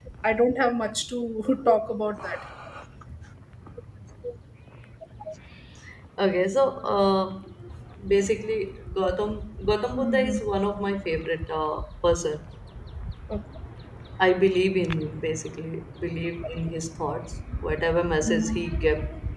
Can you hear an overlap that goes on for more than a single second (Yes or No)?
No